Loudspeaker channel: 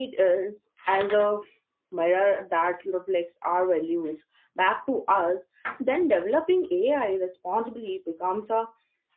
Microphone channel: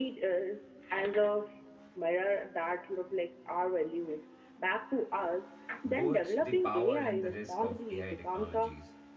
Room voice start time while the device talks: 5.8 s

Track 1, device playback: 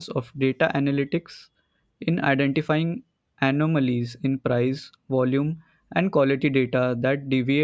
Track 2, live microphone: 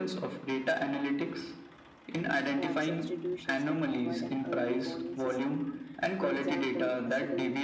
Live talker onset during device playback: 2.6 s

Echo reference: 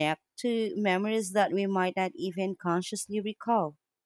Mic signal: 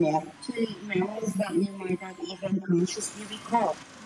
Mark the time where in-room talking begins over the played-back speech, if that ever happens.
none

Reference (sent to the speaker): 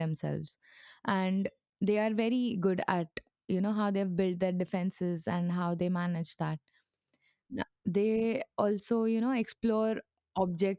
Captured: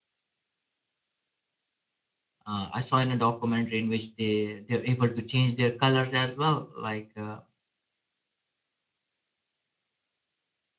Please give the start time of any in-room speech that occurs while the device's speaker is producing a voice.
2.4 s

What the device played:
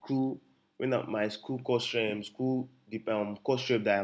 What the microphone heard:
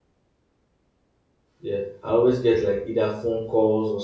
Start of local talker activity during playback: 1.6 s

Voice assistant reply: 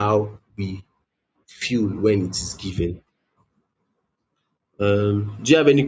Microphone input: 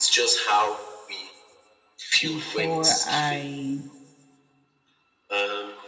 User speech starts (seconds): 2.3 s

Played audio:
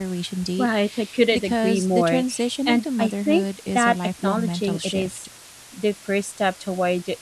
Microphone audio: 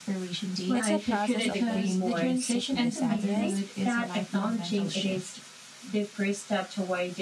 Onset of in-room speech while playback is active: 0.7 s

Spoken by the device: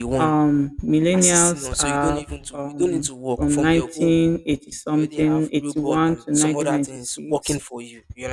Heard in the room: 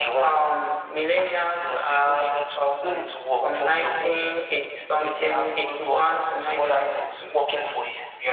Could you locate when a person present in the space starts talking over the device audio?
none

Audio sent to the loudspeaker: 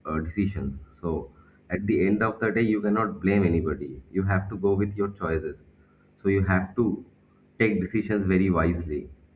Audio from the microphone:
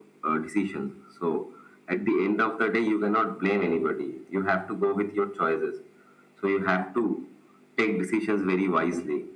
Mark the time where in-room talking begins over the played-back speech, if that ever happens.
none

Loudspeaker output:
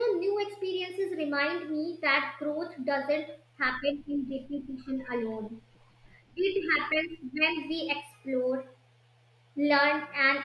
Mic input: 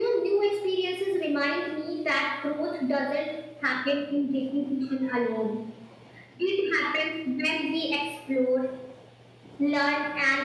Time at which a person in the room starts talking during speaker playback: none

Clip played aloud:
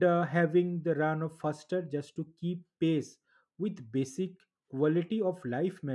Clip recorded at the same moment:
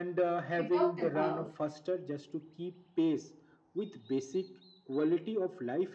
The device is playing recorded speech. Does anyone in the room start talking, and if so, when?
0.6 s

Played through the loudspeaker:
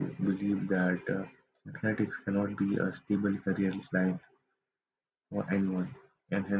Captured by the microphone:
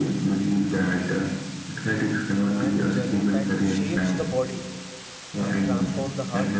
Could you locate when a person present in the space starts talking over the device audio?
2.5 s

